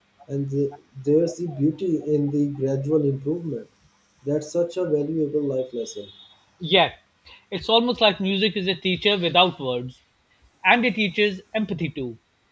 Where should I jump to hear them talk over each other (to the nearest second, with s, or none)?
none